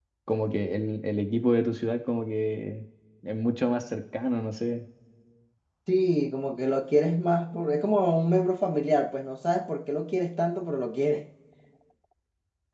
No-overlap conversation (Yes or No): Yes